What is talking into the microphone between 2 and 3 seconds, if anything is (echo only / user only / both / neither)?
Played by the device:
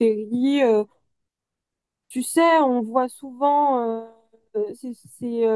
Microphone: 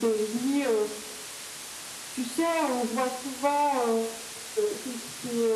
echo only